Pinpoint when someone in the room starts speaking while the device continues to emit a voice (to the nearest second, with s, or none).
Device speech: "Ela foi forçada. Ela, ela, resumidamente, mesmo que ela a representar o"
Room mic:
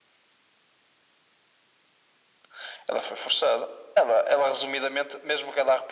none